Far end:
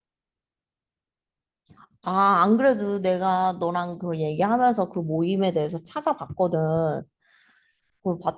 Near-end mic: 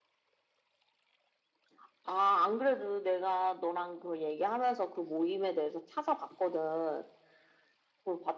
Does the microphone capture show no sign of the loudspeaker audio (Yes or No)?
No